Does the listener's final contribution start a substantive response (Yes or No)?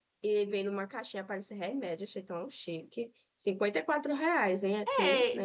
Yes